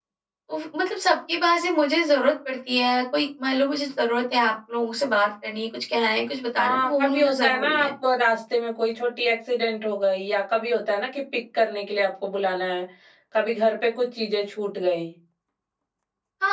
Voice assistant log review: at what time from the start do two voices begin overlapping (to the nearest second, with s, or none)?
7 s